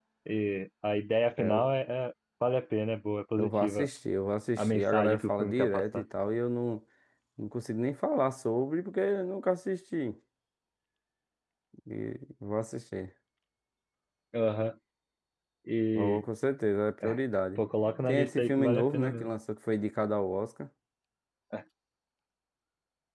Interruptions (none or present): present